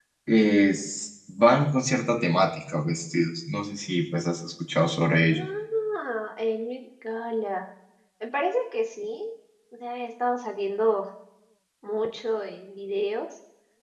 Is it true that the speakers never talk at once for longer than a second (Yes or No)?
Yes